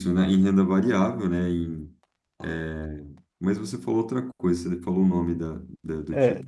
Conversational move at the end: taking over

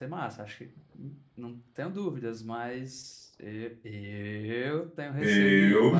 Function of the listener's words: listening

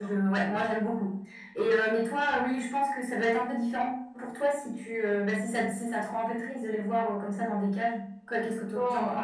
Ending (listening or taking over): taking over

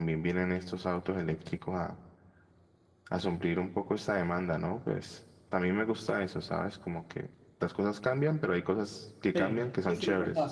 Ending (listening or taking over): taking over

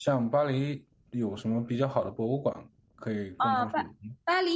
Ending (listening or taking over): taking over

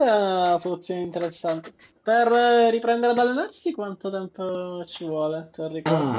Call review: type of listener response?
taking over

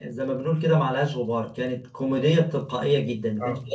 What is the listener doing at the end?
listening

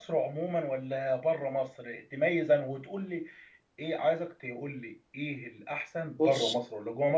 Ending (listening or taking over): listening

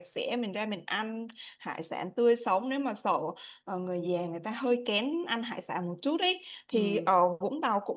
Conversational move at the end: listening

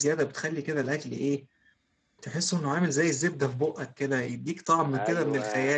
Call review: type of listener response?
taking over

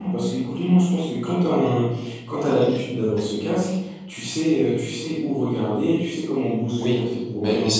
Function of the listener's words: taking over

